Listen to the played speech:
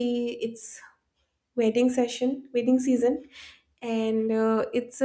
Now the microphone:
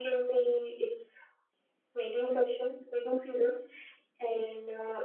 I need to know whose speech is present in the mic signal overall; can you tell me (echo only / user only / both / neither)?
echo only